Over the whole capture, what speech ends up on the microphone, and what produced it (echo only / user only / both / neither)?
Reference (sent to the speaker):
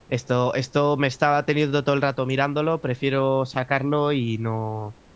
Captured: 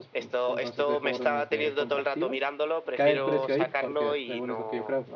both